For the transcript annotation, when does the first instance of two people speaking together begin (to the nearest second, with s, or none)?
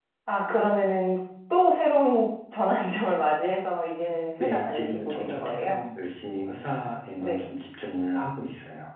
4 s